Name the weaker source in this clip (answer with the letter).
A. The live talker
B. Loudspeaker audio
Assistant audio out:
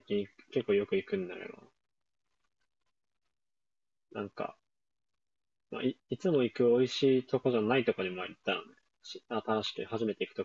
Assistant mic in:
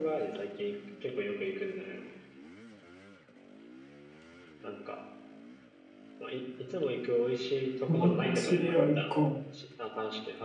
B